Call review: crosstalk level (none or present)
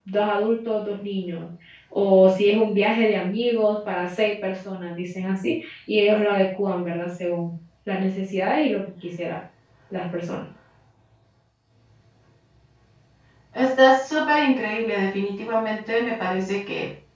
none